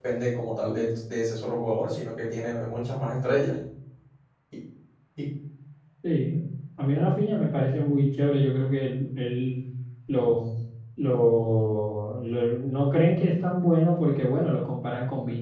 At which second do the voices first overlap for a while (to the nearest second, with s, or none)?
none